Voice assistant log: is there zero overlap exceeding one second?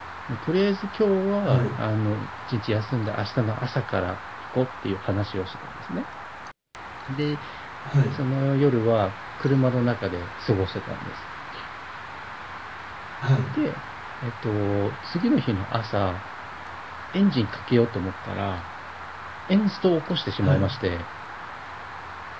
Yes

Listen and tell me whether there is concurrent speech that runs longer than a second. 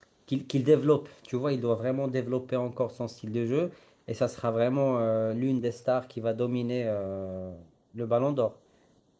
No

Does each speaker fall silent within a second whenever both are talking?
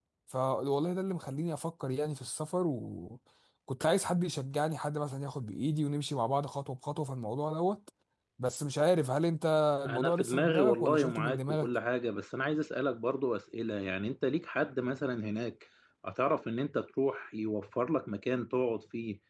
No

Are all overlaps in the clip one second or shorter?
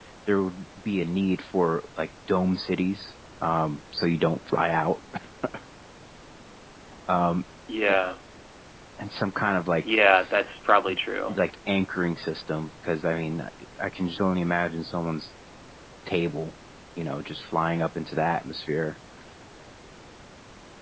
Yes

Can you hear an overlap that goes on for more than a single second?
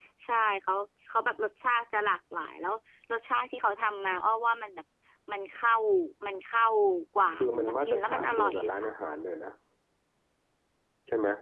Yes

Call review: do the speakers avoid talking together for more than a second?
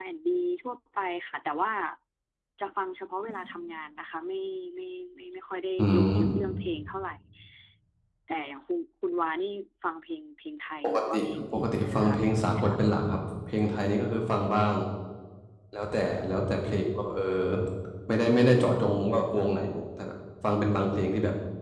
No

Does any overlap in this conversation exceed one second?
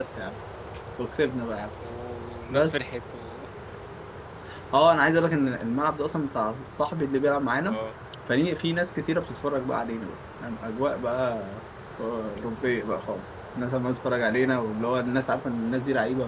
No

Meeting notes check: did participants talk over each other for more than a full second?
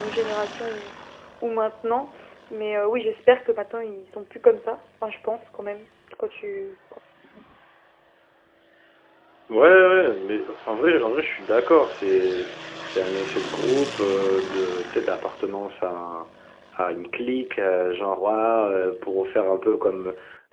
No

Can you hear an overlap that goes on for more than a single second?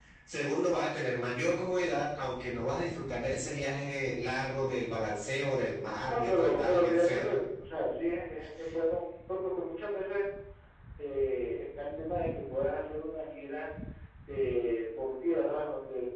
Yes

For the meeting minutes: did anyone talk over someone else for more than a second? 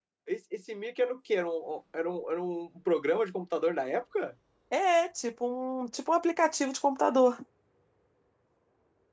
No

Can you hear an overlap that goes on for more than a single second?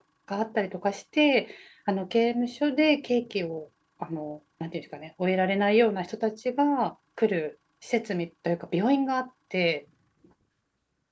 No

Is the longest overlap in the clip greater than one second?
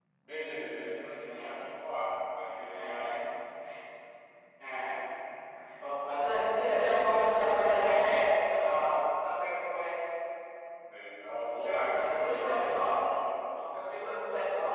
Yes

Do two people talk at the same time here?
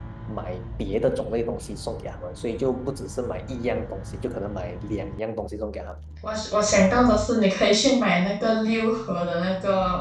No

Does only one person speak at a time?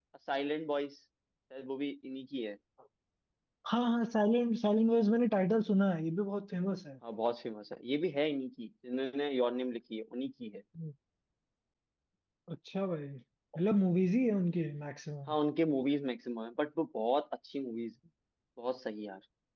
Yes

